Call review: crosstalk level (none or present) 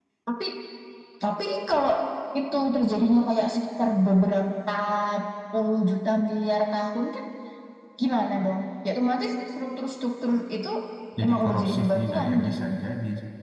present